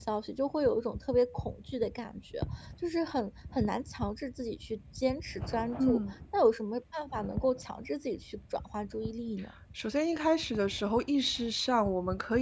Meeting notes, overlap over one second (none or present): none